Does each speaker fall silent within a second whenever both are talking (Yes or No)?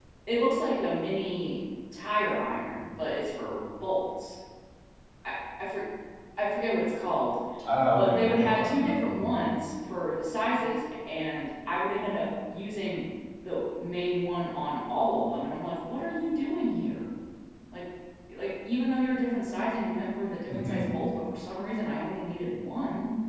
No